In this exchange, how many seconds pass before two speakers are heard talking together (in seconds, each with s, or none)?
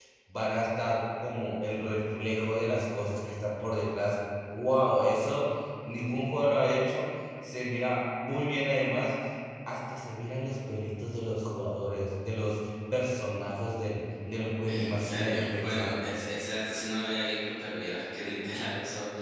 14.7 s